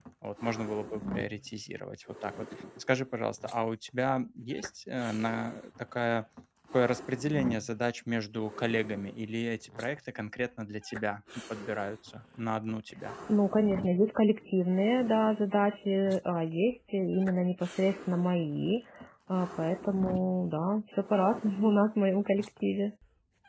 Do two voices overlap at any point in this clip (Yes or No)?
No